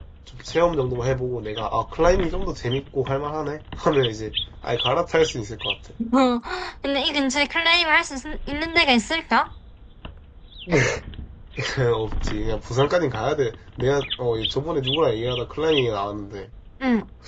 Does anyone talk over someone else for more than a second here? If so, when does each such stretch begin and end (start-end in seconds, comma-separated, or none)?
none